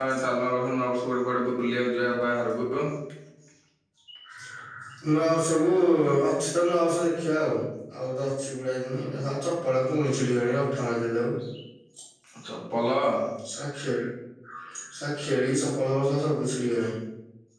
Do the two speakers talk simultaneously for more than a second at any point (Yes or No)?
No